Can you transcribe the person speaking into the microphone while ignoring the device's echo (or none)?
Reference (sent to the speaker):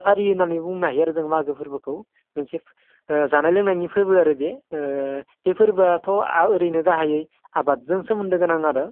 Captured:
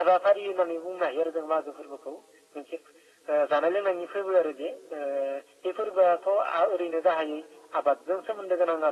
none